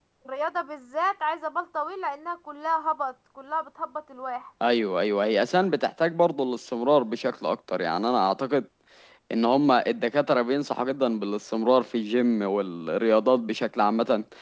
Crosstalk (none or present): none